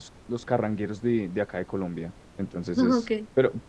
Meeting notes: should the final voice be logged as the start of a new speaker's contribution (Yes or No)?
No